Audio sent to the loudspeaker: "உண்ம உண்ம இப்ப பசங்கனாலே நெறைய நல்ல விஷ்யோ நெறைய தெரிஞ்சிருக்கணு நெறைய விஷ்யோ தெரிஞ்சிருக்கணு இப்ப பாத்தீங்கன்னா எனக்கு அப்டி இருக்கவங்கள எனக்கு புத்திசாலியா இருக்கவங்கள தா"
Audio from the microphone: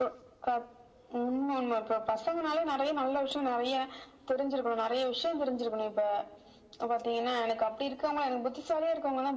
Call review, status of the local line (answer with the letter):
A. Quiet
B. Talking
A